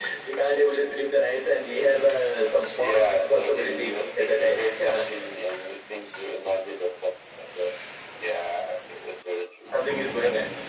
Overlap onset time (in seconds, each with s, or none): 2.8 s